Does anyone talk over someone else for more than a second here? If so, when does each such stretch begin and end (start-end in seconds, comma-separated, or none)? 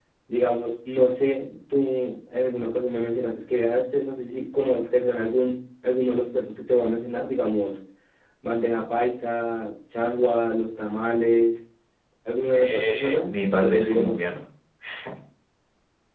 12.7-14.2